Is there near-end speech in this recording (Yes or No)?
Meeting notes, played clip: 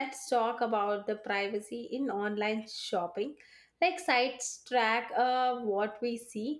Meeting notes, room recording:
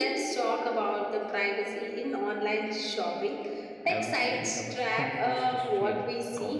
Yes